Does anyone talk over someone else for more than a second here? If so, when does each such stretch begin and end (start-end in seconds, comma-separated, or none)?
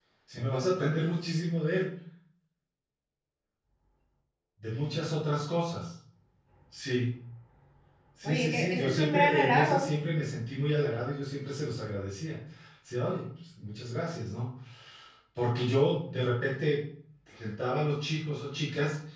8.2-9.9